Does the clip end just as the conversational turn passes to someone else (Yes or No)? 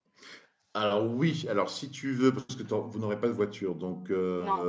No